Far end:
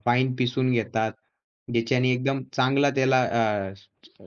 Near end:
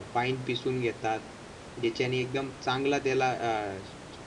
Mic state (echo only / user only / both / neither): echo only